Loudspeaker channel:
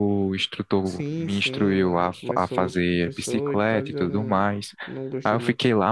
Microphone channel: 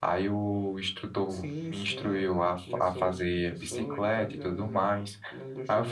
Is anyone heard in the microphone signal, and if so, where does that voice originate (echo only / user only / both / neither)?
echo only